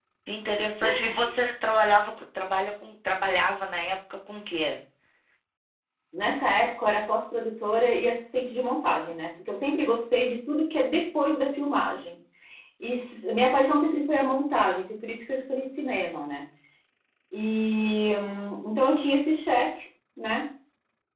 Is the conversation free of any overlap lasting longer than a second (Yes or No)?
Yes